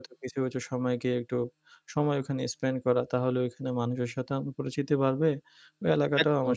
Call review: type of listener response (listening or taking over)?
listening